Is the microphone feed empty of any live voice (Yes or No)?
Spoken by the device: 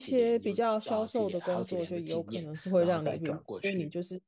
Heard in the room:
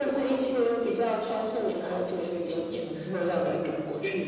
Yes